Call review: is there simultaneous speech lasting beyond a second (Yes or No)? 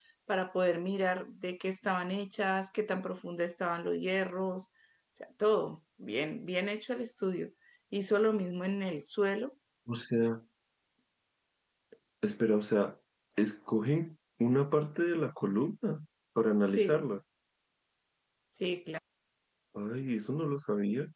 No